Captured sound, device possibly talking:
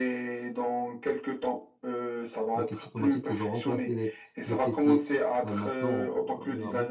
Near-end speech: present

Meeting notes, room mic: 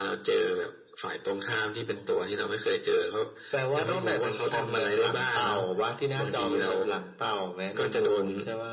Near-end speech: none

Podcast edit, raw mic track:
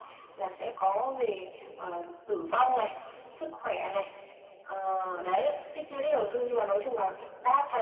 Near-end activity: none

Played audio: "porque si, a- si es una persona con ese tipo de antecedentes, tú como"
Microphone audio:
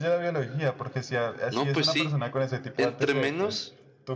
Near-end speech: present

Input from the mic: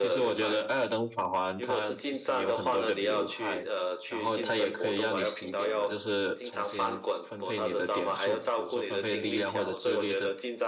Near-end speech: present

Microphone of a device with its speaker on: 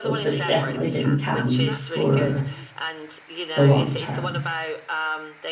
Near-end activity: present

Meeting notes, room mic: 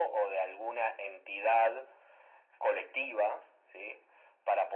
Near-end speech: none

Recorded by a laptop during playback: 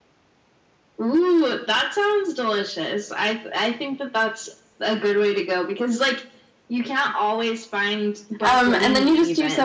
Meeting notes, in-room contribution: present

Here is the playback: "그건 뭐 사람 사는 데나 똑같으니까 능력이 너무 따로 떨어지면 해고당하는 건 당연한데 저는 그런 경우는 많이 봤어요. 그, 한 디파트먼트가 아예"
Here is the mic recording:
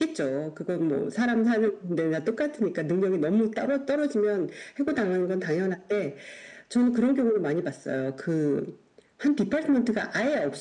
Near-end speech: none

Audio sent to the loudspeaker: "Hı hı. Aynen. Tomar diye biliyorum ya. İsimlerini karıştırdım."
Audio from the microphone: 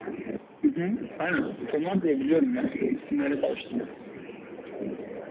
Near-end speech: none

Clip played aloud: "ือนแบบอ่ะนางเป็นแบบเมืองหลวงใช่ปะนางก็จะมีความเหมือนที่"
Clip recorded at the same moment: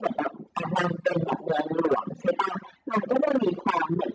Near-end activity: none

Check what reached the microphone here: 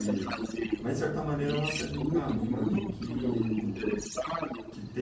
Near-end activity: present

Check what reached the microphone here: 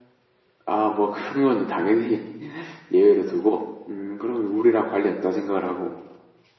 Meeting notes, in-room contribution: none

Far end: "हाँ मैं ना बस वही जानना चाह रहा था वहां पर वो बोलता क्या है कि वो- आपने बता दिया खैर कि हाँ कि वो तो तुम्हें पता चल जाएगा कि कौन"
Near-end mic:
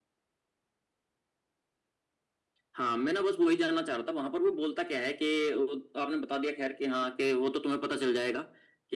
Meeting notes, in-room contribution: none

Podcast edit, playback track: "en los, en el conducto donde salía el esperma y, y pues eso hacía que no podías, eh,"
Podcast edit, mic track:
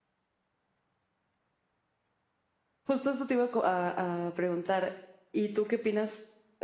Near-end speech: present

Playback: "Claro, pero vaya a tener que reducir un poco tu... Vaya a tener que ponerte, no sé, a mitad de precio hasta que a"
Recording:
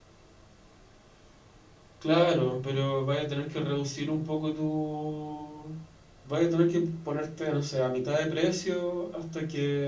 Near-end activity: none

